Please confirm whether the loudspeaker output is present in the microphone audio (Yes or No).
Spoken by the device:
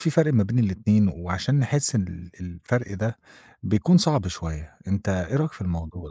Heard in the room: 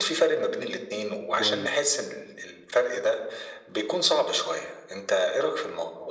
Yes